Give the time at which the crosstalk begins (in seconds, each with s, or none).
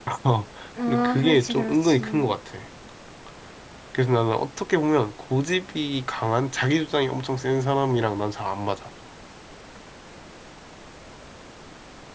0.9 s